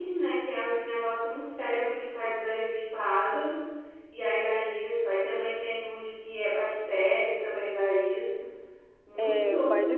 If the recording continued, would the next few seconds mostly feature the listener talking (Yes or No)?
Yes